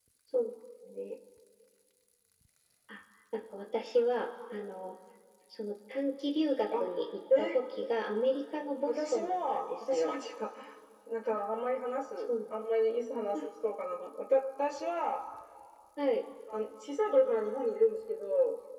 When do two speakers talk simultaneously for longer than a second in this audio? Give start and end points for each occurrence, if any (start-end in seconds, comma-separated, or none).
8.8-10.1